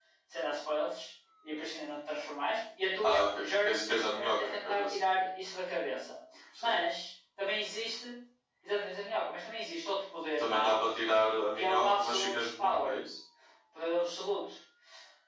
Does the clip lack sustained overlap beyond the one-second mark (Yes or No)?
No